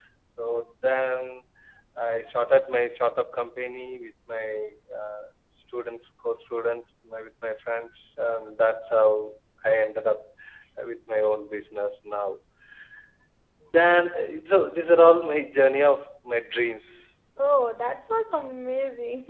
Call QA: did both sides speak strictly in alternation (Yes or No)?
Yes